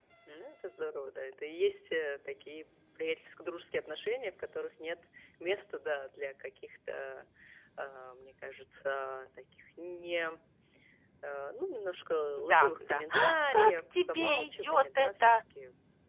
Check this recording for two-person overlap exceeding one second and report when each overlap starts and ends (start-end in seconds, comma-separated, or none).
12.5-15.3